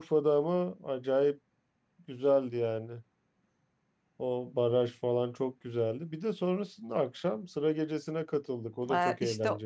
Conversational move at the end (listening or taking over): taking over